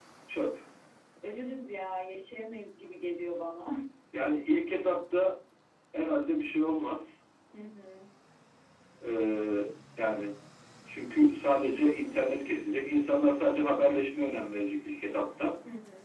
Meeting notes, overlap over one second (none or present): none